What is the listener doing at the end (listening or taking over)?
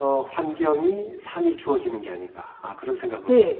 taking over